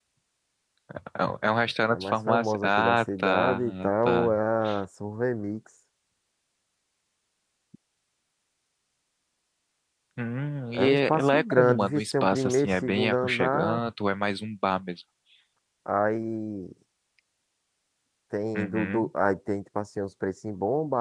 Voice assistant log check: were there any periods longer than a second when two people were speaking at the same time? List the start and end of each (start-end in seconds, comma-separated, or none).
1.9-4.3, 10.7-13.8